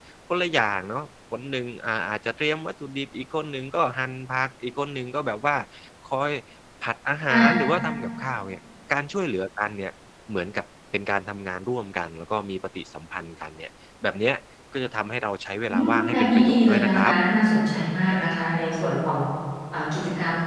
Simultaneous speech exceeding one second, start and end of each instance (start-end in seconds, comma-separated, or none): 15.7-17.1